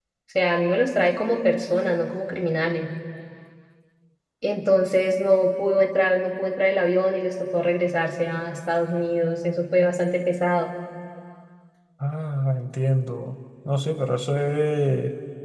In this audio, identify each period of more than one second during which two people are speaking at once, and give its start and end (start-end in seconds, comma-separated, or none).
none